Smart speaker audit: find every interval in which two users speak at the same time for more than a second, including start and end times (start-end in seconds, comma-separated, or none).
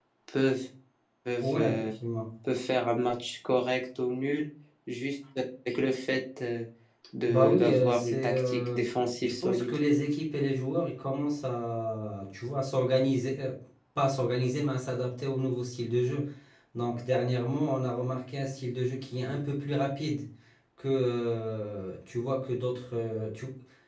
7.3-8.8